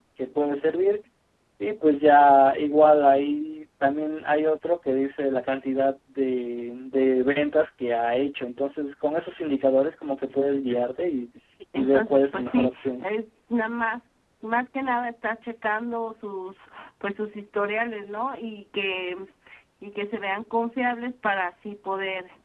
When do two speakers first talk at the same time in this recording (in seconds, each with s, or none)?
11.8 s